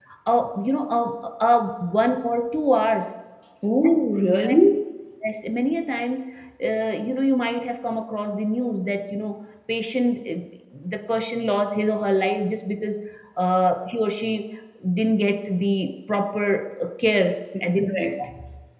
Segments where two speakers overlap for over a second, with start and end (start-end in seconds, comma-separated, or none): none